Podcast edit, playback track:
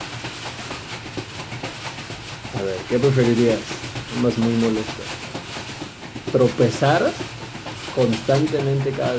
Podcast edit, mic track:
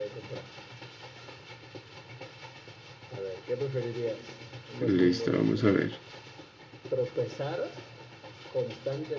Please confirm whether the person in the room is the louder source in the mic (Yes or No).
Yes